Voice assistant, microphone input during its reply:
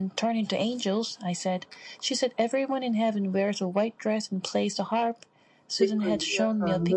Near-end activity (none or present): present